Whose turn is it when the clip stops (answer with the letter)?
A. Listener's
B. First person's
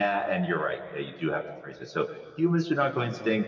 B